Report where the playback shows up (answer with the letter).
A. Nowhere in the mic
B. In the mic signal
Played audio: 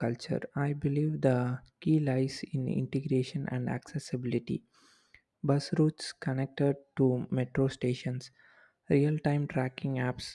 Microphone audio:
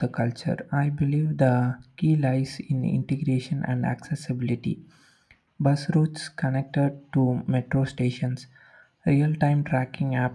B